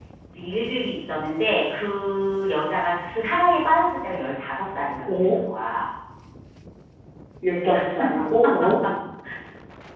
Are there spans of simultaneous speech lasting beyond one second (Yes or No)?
No